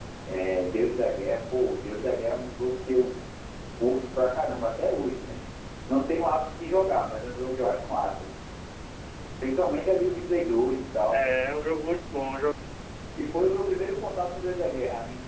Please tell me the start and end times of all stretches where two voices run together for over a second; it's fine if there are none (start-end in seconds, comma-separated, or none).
none